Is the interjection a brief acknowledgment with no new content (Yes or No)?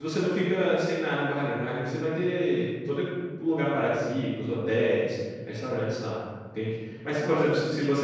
Yes